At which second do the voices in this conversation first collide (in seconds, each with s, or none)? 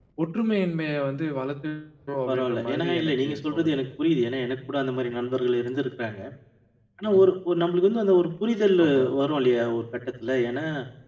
2.3 s